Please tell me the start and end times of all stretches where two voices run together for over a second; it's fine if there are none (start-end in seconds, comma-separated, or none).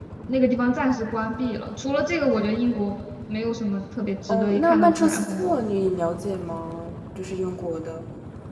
4.3-5.7